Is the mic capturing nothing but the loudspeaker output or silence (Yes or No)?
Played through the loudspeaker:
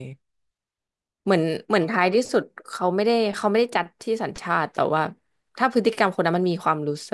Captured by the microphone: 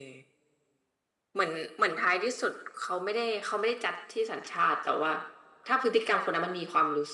Yes